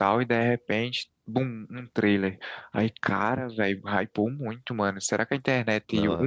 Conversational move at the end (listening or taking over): listening